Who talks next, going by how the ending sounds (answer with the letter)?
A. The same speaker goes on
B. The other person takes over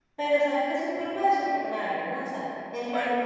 A